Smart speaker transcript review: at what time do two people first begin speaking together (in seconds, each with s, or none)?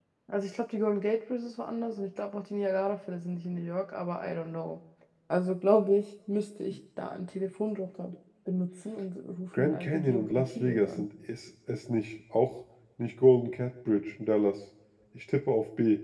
9.5 s